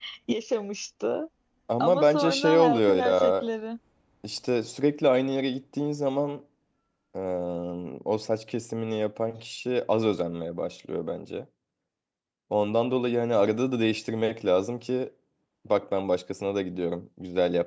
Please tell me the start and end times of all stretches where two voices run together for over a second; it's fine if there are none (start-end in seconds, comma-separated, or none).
1.8-3.5